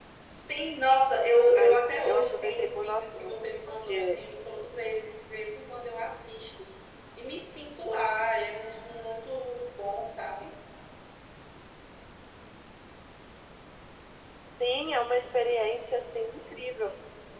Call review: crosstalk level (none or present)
present